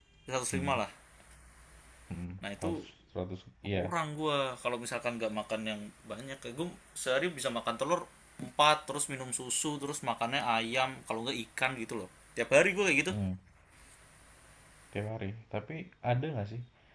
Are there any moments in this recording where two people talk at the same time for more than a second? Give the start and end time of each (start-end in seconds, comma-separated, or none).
none